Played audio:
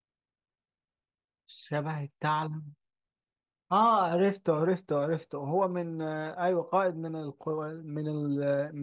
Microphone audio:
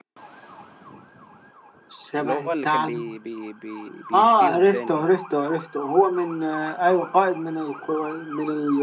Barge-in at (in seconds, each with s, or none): 2.2 s